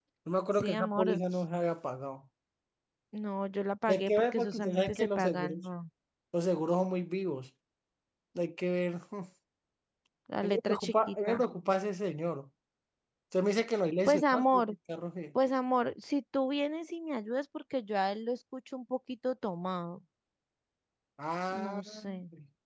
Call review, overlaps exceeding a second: present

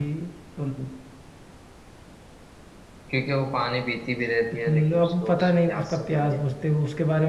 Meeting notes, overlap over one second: present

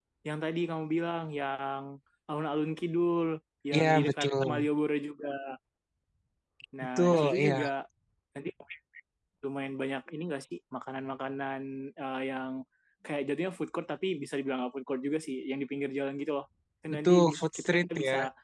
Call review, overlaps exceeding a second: present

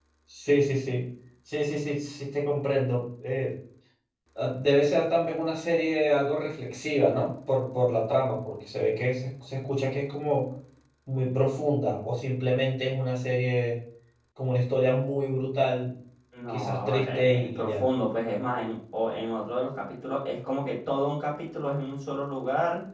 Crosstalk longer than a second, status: present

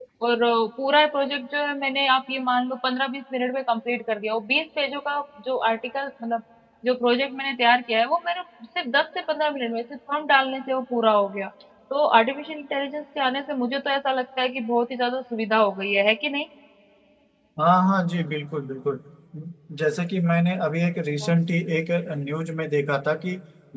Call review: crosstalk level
none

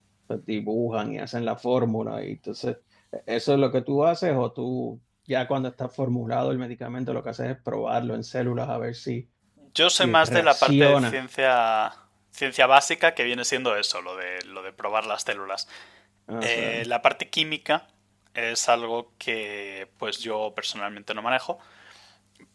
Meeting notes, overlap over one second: present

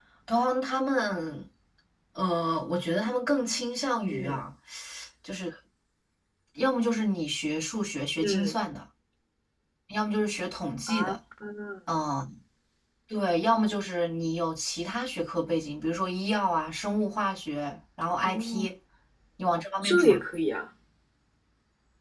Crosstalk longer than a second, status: none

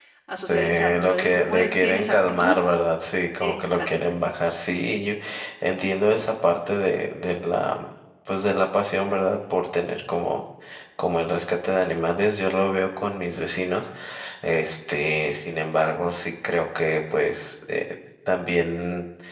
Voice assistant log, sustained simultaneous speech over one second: present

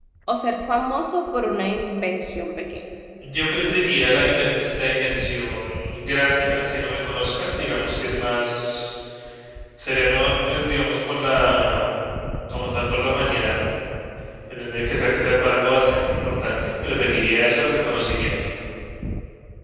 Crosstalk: none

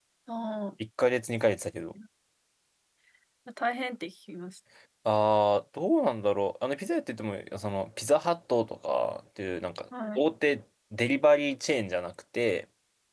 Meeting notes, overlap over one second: none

